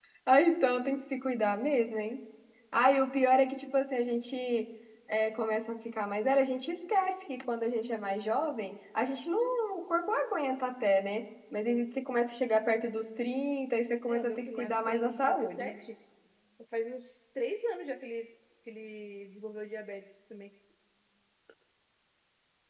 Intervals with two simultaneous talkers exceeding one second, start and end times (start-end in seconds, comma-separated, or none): 14.1-15.7